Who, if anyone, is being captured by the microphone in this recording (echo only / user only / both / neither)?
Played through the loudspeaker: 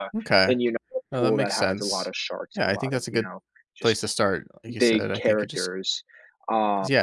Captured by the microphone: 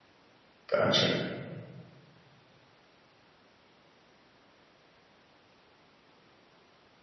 user only